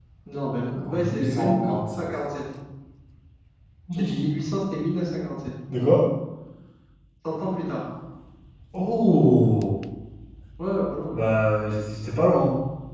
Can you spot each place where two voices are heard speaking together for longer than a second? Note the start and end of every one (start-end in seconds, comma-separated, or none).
0.8-2.1